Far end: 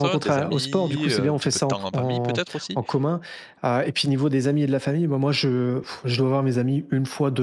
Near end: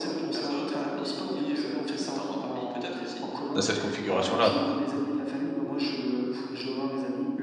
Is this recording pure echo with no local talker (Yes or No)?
No